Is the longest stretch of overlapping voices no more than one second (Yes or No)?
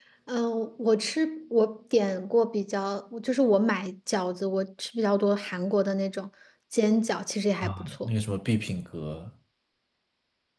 Yes